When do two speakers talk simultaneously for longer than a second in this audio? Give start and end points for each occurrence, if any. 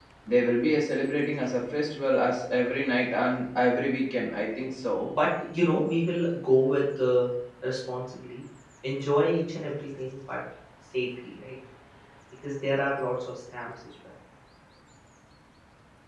none

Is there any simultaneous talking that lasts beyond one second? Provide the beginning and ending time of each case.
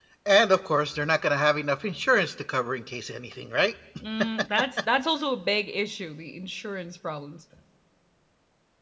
none

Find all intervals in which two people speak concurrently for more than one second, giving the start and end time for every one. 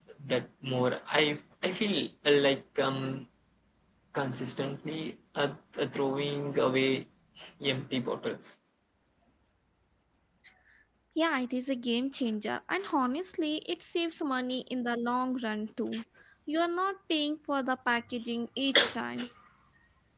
none

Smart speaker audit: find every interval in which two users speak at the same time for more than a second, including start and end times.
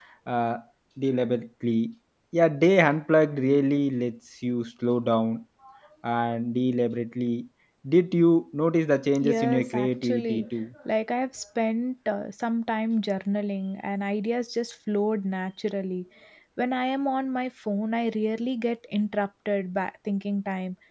9.2-10.5

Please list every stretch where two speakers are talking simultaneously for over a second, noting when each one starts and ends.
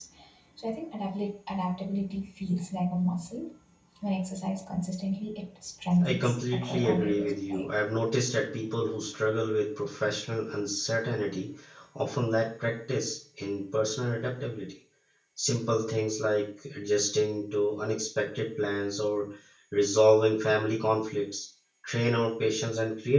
6.0-7.7

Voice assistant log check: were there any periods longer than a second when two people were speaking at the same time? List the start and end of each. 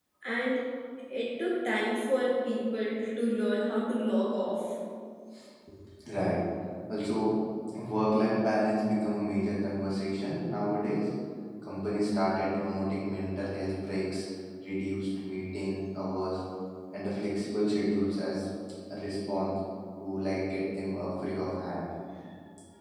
none

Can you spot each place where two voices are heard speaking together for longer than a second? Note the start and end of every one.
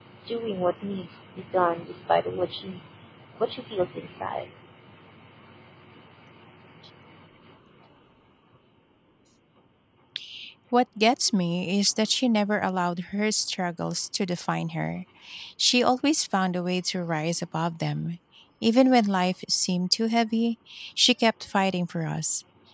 none

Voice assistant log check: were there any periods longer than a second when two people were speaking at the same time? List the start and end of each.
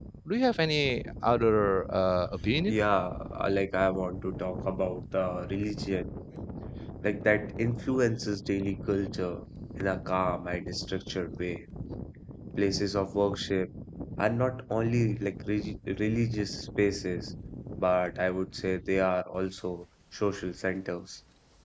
none

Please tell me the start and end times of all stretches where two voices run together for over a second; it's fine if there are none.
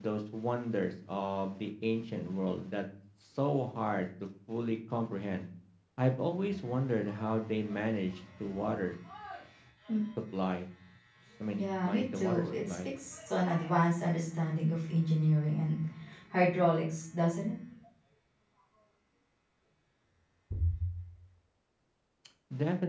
11.6-12.9

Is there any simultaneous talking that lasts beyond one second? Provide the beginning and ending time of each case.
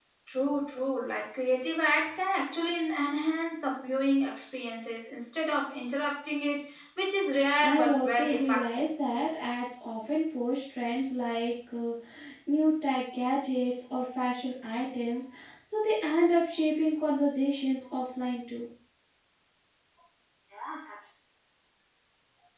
7.6-8.8

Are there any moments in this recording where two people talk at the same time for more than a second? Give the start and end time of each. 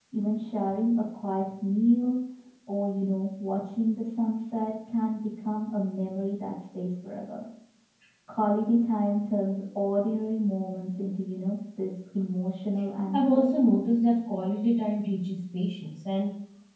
none

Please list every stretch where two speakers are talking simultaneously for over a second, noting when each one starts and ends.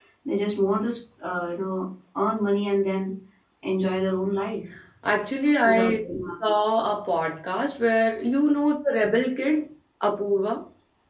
none

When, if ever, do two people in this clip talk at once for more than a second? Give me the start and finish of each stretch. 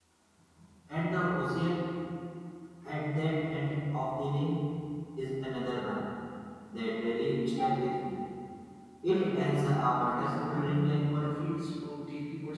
10.2-11.5

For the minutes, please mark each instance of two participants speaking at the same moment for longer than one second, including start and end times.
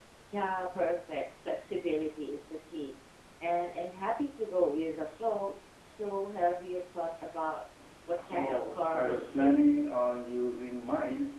8.3-9.5

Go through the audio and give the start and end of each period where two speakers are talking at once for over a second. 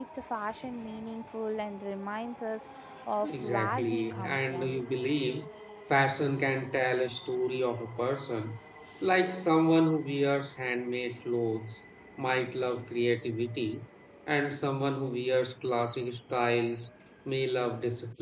3.2-4.8

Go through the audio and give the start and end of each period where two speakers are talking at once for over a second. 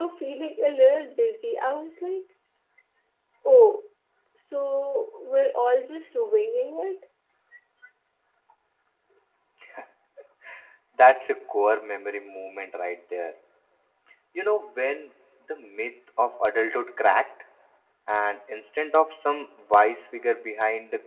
none

